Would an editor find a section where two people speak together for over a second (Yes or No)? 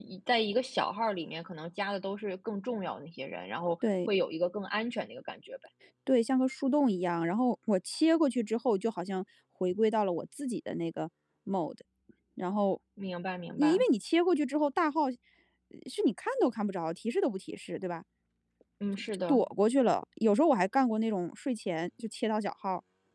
No